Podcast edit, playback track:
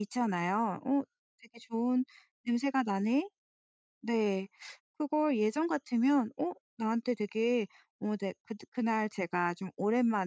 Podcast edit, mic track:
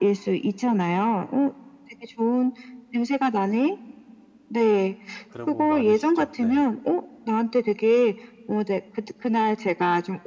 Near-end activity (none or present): present